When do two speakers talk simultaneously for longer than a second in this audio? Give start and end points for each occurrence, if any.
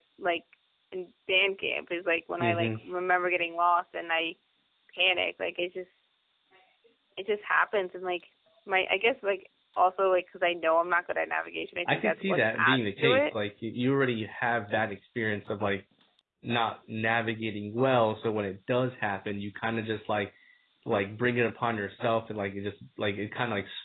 11.8-13.3

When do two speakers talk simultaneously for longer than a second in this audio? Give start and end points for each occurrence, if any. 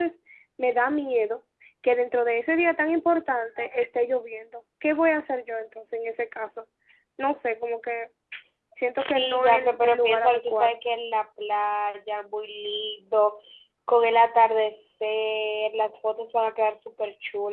8.9-10.8

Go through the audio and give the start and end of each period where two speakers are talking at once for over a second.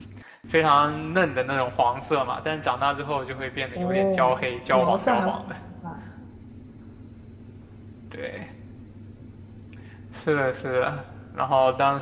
3.8-5.3

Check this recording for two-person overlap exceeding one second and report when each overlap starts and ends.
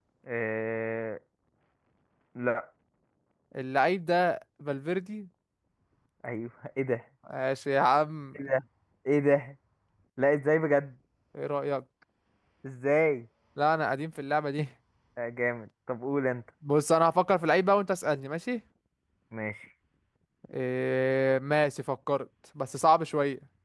none

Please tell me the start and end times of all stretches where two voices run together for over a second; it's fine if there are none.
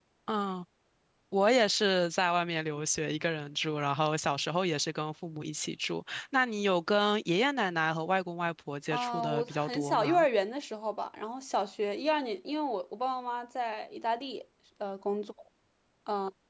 8.9-10.2

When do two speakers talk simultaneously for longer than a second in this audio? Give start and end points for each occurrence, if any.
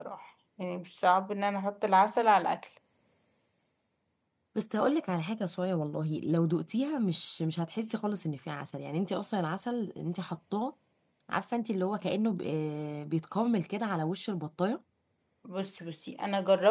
none

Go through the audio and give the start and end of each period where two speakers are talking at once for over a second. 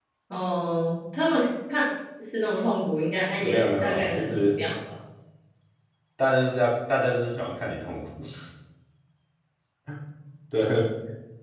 3.3-4.6

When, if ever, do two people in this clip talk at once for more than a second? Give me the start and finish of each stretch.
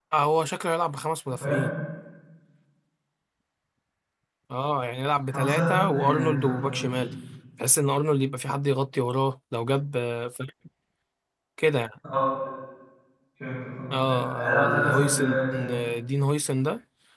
5.3-7.0, 14.4-15.8

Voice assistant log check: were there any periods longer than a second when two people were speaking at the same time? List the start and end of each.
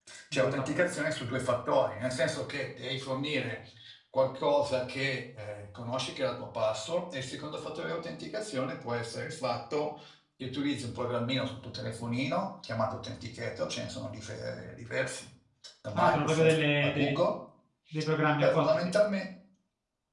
15.9-17.2

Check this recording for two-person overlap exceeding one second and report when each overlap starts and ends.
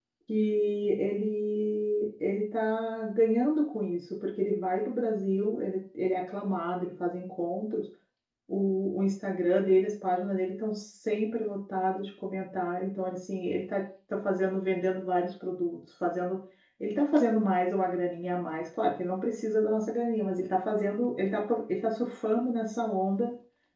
none

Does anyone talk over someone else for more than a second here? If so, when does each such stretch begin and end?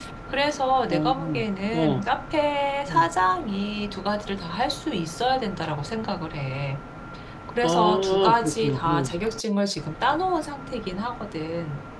7.6-9.1

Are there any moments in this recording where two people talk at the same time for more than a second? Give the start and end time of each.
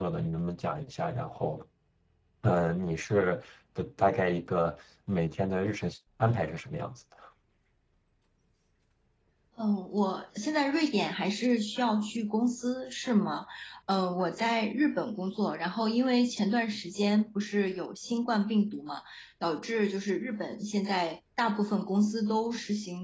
none

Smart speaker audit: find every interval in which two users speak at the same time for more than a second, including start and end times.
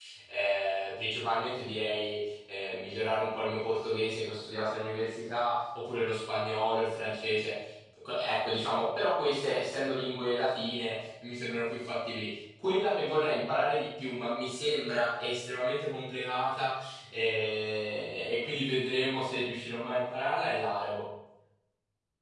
none

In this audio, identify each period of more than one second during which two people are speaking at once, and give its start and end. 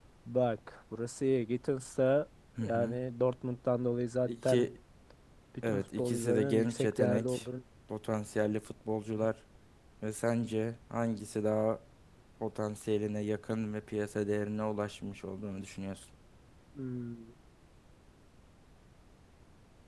5.6-7.4

